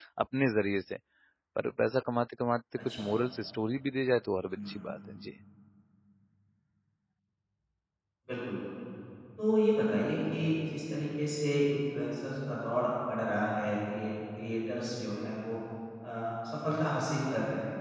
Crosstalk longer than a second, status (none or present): none